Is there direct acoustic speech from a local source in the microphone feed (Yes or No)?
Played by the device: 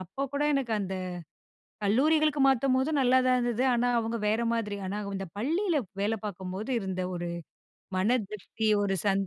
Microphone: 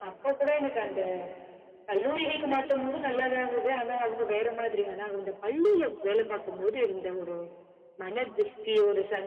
No